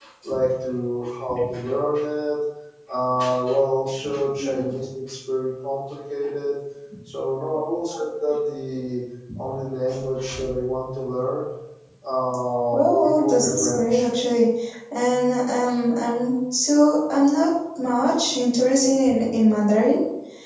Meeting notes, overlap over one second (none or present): present